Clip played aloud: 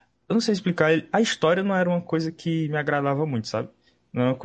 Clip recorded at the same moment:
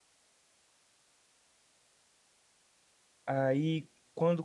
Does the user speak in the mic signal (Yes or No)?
Yes